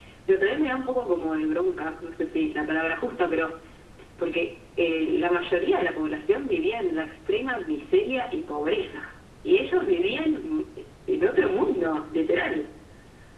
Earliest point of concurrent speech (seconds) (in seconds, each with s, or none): none